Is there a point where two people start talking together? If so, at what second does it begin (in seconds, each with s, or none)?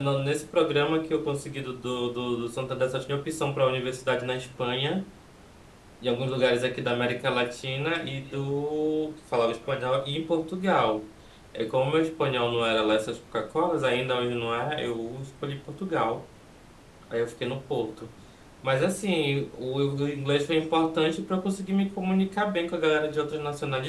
none